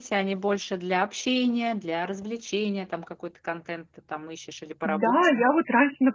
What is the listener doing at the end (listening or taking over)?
taking over